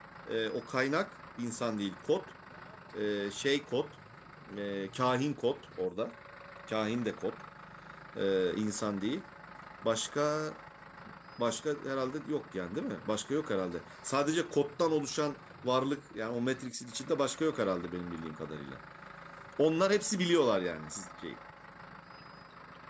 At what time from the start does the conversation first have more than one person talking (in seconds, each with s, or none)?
none